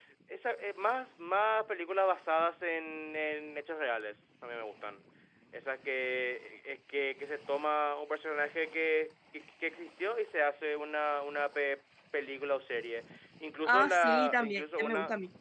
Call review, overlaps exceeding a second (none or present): present